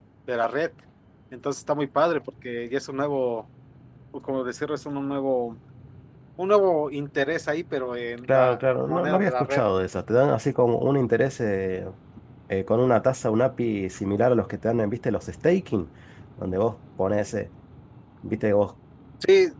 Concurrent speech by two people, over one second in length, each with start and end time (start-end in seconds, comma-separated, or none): 8.3-9.6